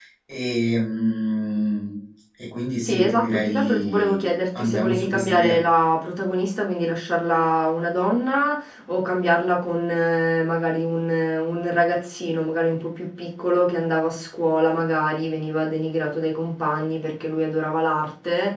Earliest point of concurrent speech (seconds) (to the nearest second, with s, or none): 3 s